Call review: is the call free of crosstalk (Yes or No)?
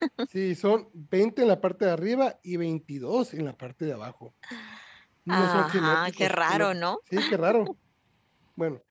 No